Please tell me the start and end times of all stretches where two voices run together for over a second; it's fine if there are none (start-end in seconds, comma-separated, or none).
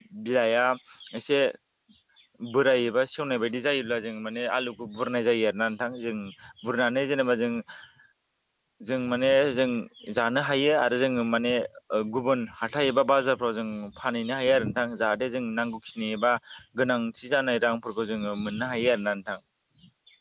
none